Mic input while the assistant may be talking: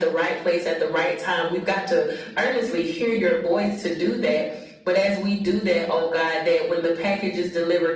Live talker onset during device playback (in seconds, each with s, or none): none